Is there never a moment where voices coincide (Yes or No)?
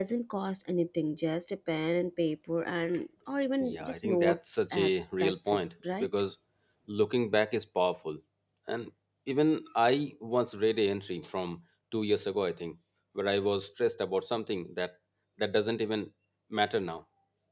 No